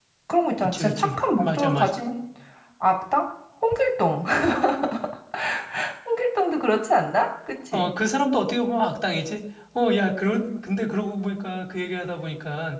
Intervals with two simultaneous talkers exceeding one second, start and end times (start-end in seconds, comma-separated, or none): 0.6-2.0